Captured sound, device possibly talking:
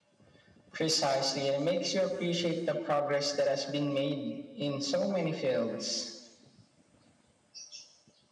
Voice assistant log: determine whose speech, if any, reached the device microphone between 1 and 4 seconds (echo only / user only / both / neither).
echo only